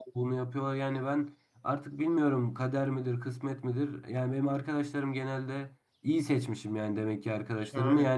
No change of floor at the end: Yes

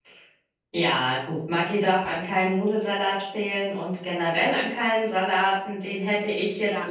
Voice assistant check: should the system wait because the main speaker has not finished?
Yes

